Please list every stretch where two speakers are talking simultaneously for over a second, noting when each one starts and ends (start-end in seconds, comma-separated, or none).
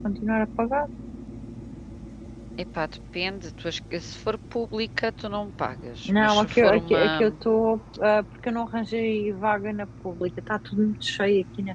6.0-7.3